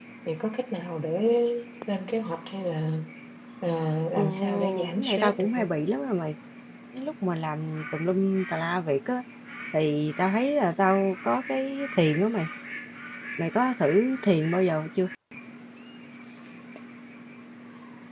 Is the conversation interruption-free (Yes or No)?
No